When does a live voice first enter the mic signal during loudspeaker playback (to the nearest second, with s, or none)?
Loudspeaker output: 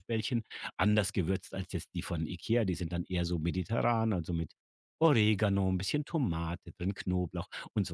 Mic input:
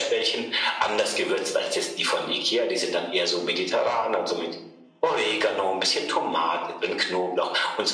none